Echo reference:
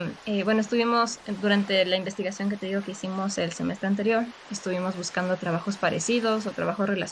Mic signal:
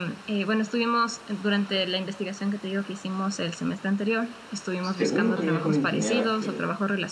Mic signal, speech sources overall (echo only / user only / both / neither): both